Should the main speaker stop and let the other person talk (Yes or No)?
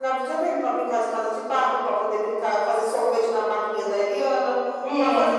No